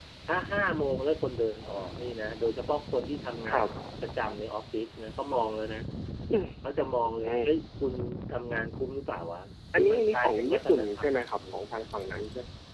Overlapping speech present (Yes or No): Yes